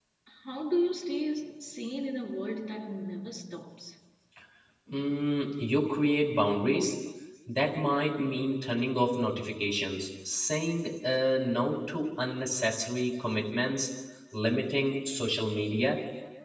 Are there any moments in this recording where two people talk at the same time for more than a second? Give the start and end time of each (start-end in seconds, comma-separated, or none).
none